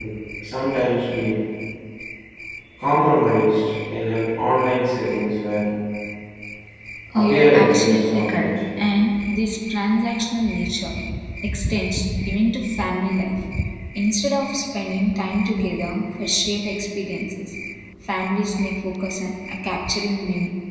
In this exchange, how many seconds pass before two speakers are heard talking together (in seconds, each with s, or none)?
7.1 s